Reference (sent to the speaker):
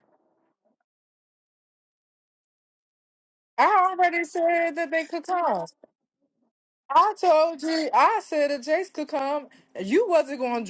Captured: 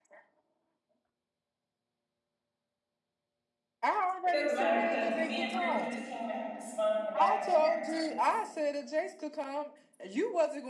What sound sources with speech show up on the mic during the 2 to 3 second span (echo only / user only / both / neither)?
neither